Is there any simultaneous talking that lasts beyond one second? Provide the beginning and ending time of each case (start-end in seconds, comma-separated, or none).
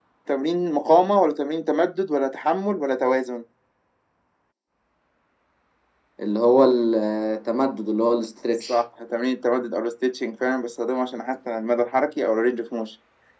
none